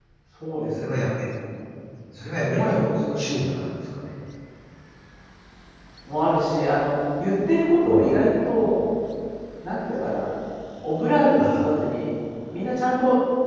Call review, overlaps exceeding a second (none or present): none